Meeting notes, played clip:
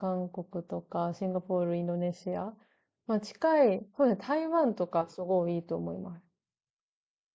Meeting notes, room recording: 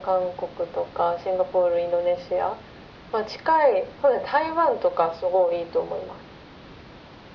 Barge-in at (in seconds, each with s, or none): none